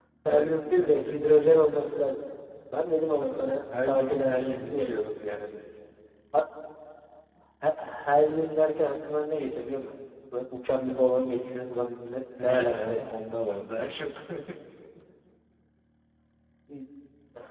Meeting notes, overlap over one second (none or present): present